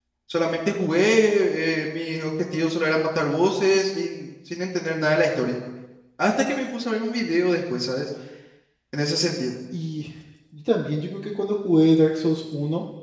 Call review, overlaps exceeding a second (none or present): none